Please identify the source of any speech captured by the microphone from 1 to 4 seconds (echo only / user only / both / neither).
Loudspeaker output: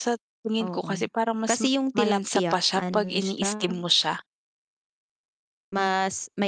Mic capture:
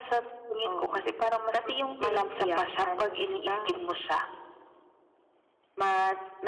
echo only